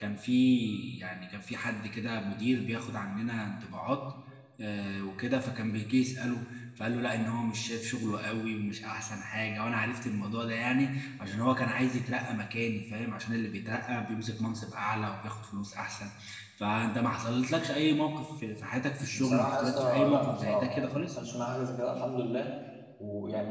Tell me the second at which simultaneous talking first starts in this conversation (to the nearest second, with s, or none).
19 s